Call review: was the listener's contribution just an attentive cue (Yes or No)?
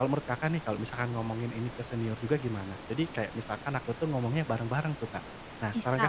No